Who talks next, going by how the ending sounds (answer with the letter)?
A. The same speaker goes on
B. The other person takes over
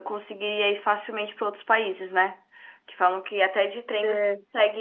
A